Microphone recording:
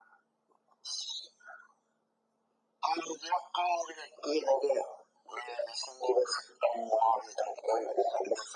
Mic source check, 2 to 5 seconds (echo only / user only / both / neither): echo only